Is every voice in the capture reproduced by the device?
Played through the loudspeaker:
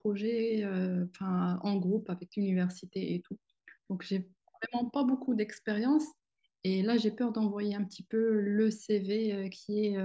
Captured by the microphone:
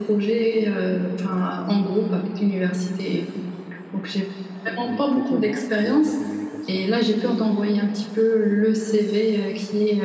No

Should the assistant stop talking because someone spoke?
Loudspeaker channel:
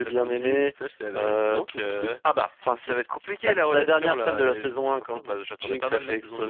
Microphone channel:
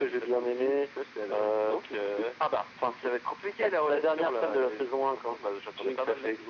No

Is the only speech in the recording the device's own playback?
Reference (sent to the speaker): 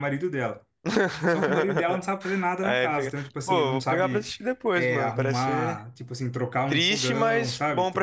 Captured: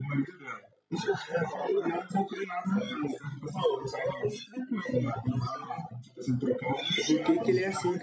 No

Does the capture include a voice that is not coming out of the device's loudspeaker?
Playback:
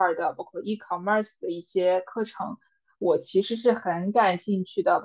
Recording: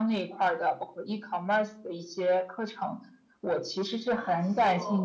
Yes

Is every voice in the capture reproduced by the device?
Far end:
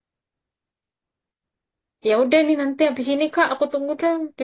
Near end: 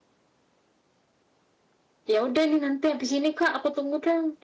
Yes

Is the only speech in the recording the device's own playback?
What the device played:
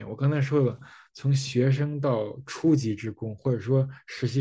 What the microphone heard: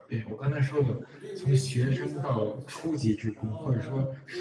No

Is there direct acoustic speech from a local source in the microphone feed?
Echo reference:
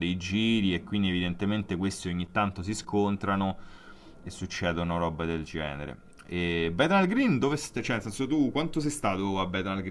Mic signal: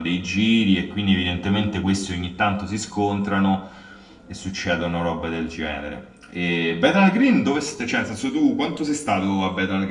No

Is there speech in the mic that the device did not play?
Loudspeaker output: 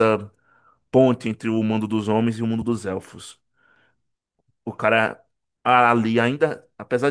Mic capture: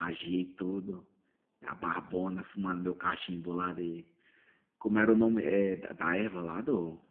Yes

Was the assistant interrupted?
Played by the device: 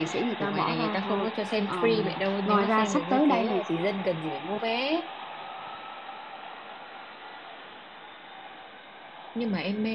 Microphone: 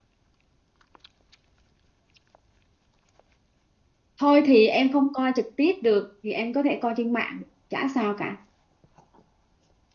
Yes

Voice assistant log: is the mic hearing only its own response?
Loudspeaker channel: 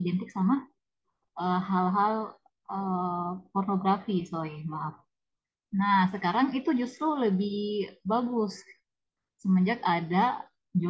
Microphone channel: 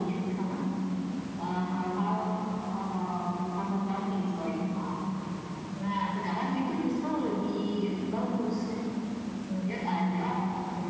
Yes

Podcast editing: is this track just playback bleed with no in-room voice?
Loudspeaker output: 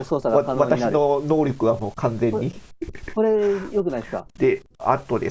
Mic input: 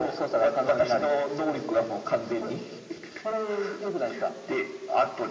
Yes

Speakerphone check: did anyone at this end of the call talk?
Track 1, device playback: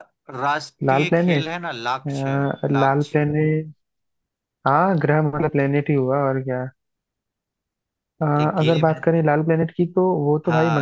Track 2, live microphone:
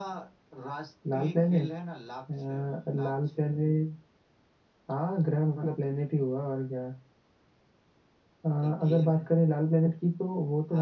No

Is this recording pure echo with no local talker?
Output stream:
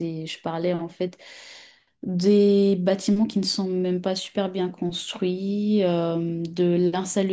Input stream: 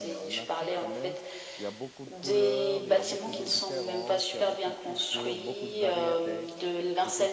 No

